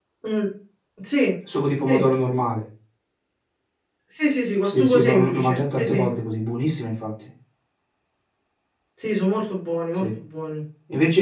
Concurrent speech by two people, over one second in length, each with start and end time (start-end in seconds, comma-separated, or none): 4.6-6.1